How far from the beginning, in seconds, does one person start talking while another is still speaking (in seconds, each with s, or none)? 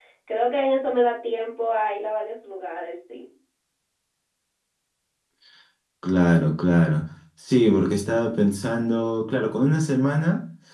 none